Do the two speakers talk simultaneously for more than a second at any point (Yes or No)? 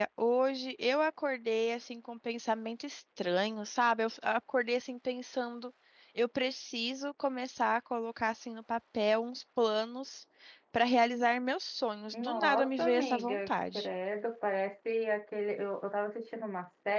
Yes